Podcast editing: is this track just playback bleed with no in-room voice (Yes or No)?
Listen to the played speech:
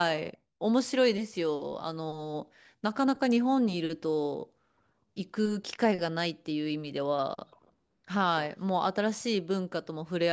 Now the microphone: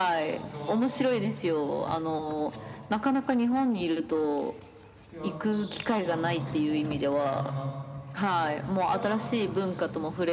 No